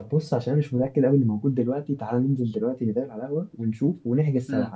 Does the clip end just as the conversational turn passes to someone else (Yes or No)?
Yes